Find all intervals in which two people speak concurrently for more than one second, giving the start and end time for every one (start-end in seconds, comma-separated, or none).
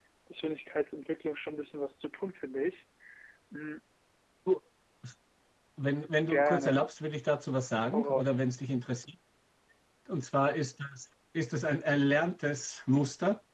none